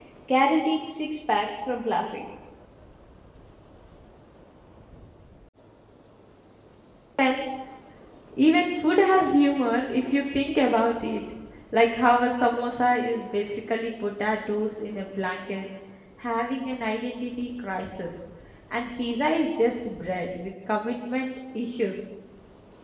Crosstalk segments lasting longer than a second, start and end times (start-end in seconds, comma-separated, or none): none